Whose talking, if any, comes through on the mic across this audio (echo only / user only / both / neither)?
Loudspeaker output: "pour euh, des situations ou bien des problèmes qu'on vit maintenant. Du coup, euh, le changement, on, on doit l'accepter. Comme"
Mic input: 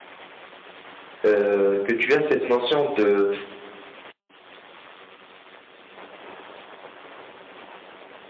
user only